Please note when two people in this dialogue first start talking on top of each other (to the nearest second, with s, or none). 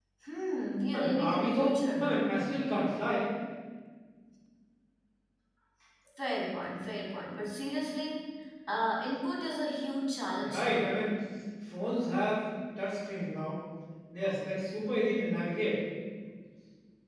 1 s